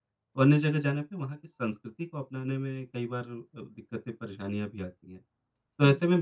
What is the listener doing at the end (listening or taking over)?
listening